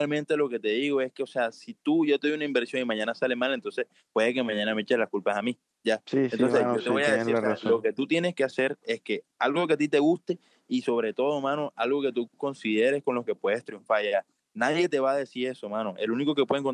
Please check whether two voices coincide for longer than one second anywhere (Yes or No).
Yes